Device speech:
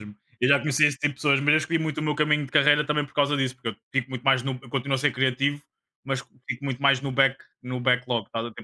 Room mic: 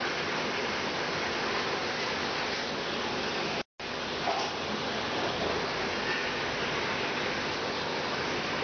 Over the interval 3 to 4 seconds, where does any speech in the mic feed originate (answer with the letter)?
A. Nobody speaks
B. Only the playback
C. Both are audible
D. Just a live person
A